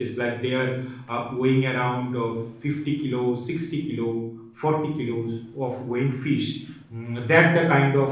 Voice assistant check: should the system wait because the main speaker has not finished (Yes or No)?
Yes